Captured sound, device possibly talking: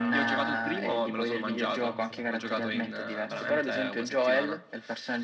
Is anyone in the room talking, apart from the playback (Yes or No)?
Yes